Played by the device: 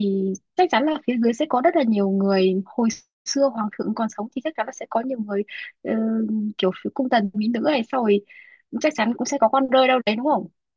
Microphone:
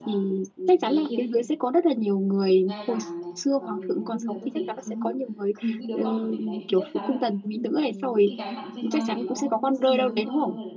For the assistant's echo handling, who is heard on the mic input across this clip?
both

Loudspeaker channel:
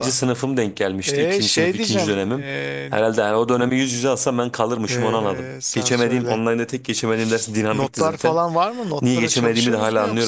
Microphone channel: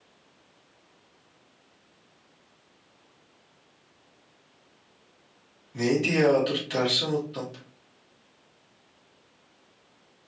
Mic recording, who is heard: user only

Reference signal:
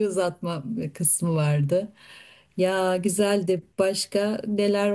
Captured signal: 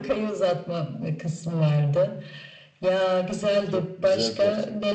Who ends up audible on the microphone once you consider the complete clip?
both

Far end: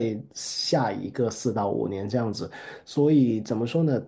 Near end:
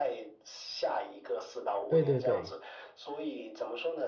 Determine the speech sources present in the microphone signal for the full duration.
both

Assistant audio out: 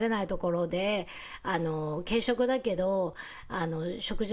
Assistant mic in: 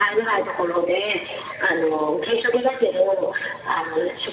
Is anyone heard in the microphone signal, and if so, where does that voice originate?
echo only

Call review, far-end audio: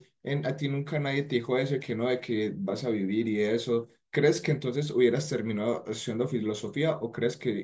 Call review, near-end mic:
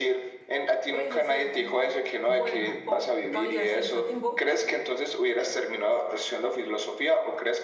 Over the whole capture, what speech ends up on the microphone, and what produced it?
both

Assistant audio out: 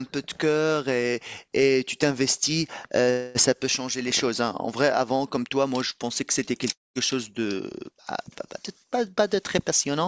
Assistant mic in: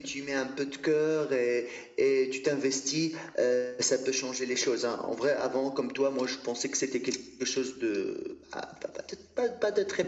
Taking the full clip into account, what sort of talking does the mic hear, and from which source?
echo only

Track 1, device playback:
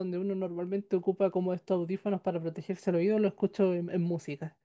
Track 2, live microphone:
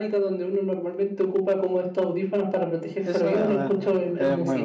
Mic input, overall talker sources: both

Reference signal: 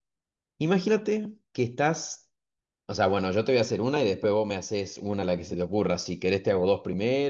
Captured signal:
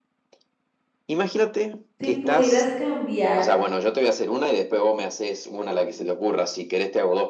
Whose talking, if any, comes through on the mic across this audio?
both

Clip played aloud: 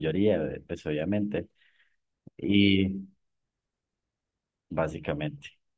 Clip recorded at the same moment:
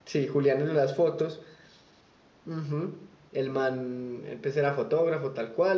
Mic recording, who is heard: user only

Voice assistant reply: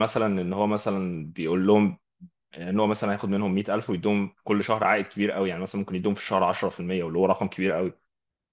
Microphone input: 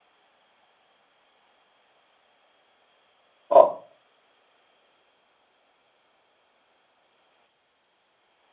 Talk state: user only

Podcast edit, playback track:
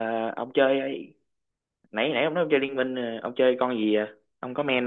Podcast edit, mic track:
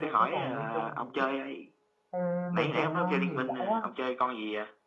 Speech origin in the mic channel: both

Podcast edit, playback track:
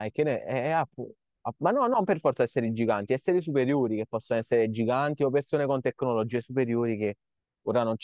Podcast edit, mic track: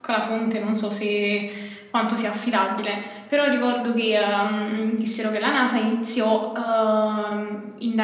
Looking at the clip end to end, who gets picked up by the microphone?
user only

